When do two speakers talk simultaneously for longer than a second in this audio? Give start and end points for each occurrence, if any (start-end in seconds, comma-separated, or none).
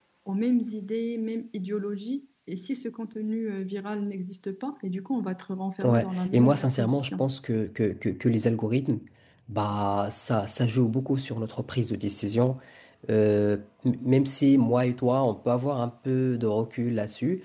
5.8-7.3